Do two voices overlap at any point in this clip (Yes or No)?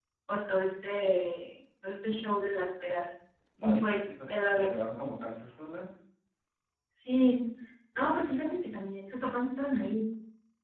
Yes